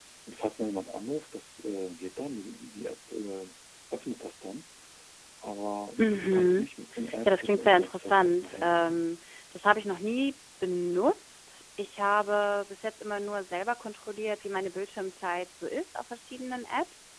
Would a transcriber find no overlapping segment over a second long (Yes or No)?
No